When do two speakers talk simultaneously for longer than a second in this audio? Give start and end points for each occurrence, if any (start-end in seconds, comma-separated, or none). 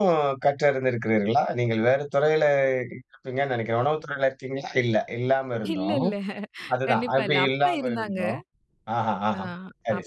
6.9-8.2